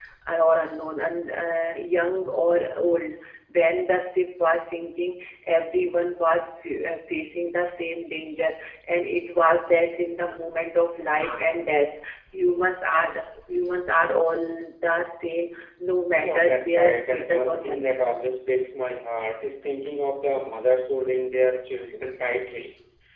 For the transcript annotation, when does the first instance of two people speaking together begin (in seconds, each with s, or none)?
16.2 s